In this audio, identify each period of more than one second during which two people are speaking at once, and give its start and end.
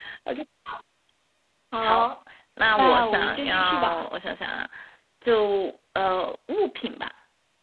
2.8-4.0

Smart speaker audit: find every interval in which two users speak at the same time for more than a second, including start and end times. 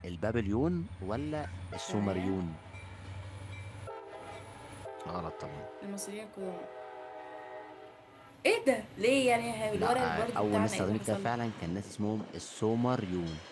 9.7-11.3

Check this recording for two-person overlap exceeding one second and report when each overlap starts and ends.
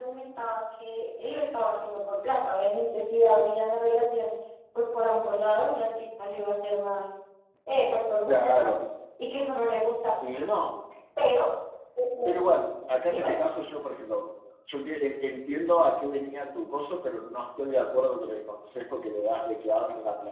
none

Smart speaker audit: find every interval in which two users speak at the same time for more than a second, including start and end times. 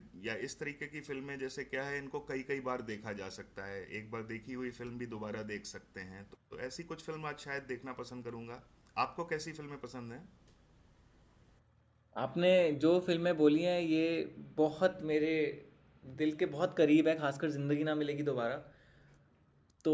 none

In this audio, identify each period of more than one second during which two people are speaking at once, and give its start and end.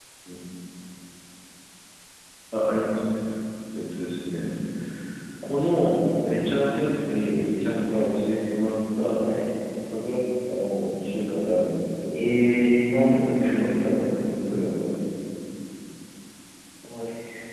none

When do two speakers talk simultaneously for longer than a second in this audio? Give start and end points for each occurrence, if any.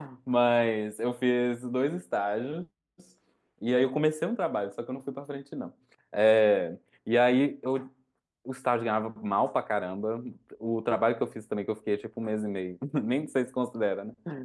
none

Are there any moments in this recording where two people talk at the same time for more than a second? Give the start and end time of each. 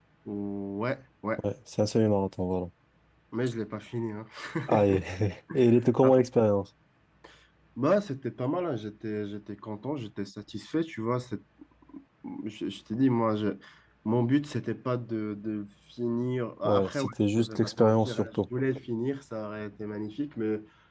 16.6-18.4

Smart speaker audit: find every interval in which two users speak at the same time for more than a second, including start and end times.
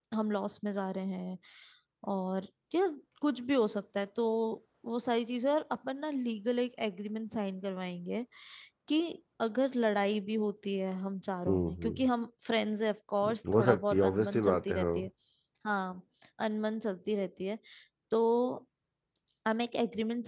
13.5-14.9

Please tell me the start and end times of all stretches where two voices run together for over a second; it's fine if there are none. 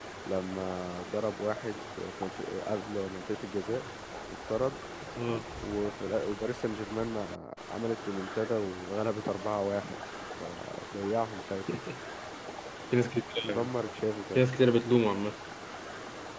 none

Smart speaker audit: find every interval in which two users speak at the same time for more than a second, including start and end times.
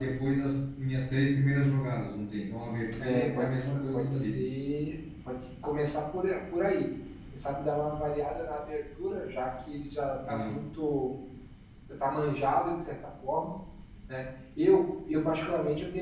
3.0-4.4

